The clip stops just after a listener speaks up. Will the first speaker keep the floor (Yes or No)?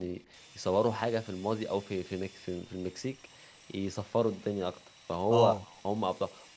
Yes